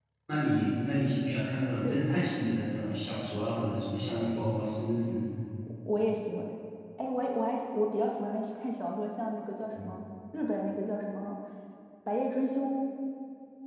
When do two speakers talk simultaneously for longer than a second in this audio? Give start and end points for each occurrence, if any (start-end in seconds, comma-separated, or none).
none